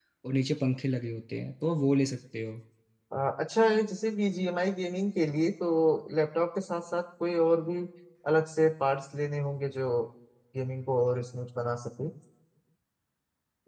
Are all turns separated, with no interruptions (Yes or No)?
Yes